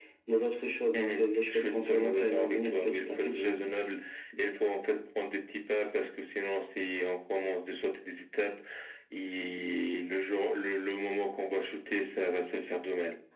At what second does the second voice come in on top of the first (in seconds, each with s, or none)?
0.9 s